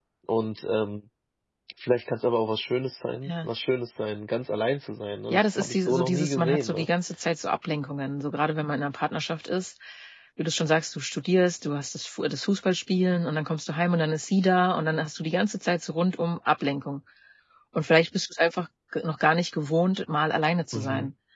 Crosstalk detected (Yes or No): Yes